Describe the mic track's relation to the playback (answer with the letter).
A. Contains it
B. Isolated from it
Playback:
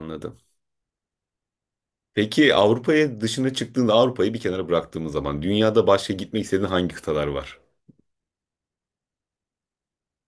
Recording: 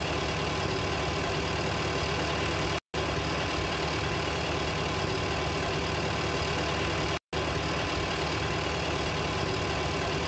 B